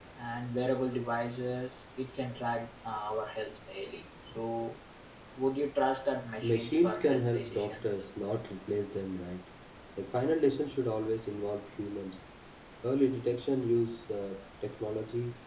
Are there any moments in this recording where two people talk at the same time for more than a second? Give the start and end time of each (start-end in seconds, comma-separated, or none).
6.4-7.9